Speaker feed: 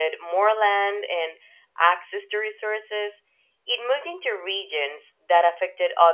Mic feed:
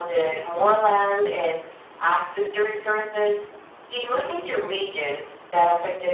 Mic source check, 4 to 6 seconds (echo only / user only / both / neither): echo only